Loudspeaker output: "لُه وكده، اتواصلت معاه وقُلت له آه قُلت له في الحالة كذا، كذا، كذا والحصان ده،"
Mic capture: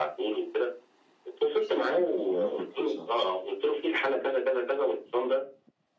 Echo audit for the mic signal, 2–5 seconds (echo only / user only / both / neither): both